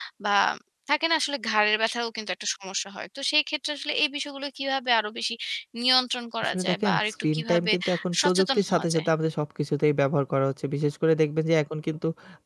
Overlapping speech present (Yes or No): Yes